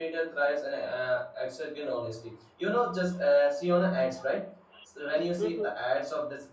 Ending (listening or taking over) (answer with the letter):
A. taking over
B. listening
B